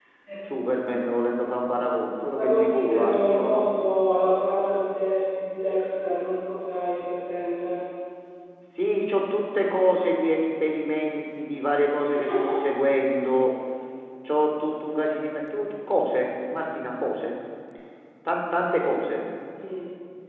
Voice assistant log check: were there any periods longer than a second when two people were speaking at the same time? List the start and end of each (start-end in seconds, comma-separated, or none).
2.2-3.6